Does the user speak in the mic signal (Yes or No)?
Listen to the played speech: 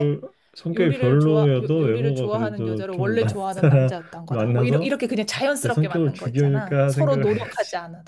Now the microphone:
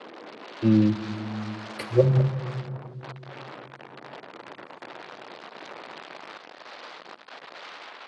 Yes